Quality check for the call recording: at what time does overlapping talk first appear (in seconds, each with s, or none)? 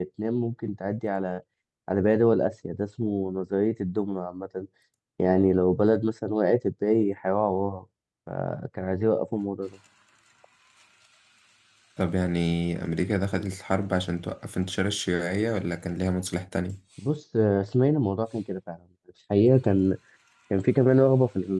none